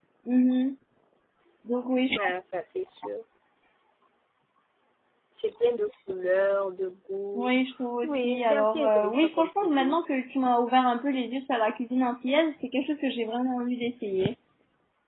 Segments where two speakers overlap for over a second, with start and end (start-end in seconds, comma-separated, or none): 8.0-9.9